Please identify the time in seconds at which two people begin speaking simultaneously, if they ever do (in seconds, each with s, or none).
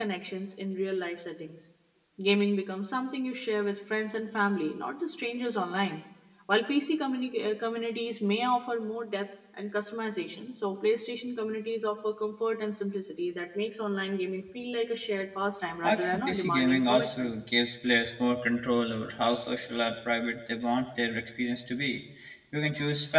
15.8 s